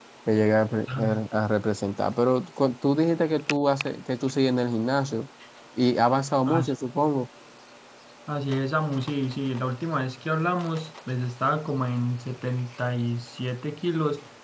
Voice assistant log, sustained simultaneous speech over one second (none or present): none